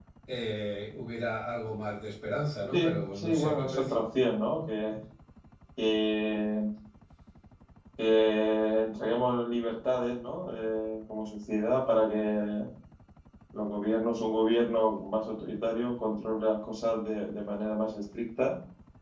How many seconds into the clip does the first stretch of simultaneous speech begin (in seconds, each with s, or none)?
2.7 s